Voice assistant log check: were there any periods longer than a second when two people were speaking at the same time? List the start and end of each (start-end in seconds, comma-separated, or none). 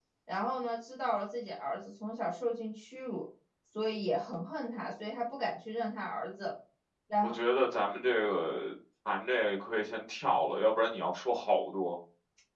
none